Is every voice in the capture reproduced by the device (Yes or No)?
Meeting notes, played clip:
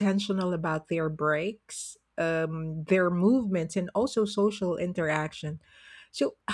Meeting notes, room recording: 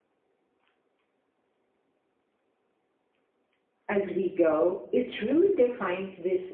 No